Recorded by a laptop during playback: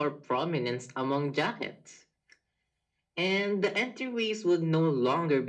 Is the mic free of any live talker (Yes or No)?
Yes